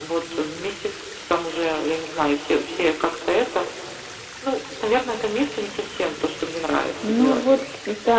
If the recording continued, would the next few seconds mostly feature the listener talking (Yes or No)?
Yes